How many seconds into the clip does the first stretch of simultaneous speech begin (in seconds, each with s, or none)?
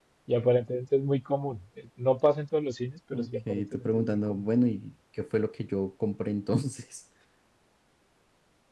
3.1 s